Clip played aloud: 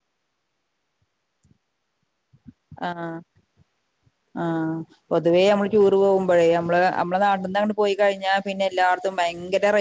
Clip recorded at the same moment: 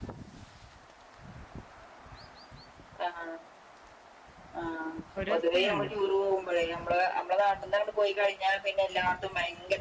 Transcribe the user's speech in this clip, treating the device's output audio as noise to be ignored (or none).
ഒരു ദിവസത്തന്ന്